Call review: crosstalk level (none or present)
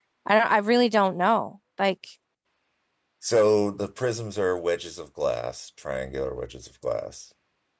none